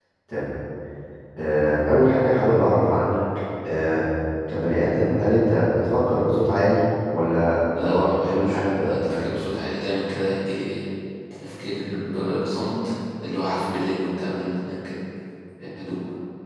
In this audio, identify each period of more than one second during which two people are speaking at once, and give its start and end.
7.8-9.3

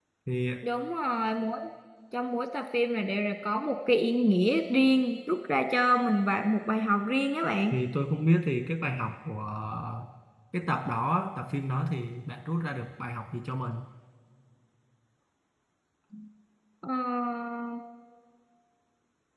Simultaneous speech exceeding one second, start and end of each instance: none

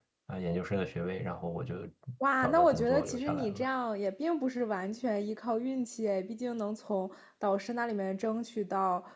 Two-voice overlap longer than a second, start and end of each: 2.4-3.6

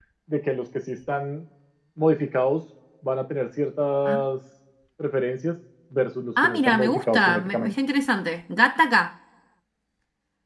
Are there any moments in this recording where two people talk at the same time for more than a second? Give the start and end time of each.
6.4-7.7

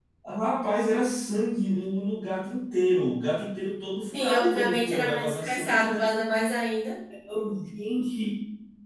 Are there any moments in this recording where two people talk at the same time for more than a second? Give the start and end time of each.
4.1-6.1

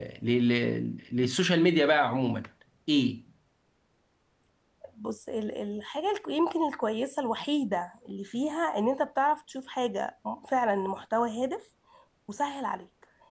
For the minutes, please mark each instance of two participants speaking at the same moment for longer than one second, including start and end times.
none

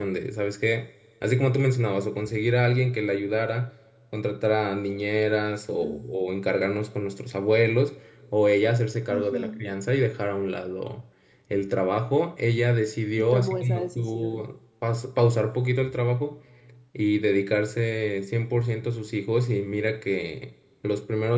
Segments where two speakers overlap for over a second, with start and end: 13.2-14.4

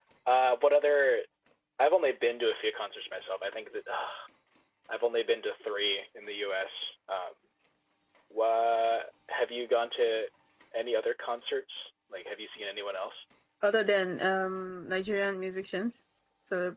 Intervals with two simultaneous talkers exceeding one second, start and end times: none

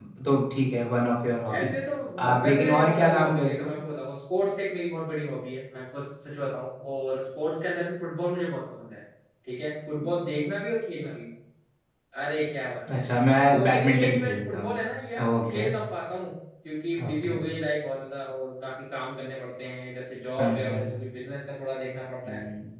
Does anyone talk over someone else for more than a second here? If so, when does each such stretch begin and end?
2.3-3.7, 13.5-14.8

